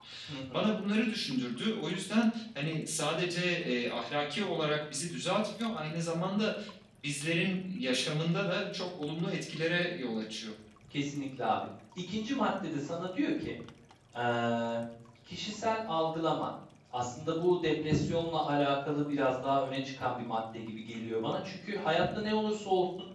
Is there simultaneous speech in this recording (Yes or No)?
No